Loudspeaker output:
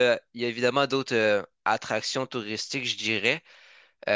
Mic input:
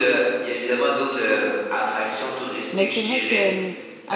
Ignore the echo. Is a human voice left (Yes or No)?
Yes